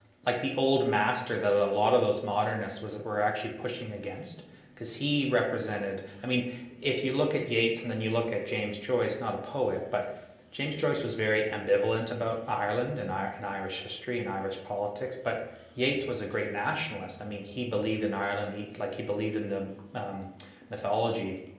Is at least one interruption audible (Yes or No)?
No